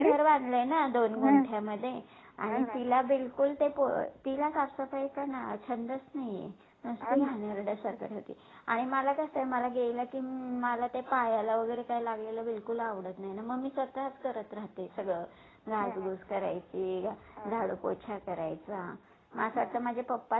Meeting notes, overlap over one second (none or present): none